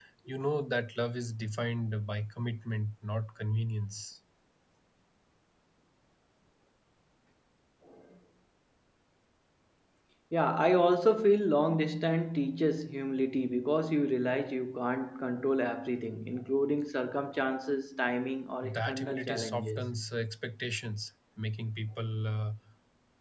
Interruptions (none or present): present